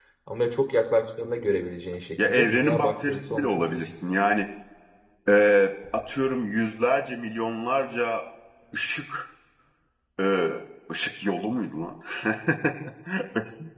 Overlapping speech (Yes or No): Yes